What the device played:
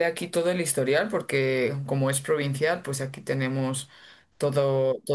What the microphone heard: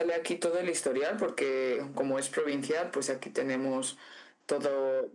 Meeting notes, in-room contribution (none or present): none